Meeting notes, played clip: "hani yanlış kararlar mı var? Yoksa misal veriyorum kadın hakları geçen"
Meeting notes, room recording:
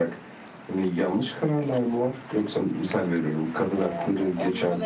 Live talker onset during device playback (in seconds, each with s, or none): 3.8 s